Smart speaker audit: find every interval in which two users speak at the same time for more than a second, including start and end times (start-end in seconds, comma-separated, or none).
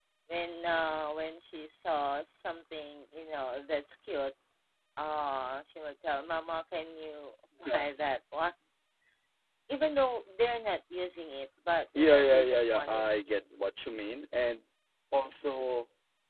12.0-13.4